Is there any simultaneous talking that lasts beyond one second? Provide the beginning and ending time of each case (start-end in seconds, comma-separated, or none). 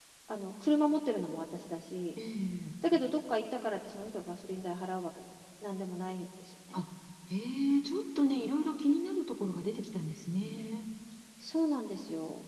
none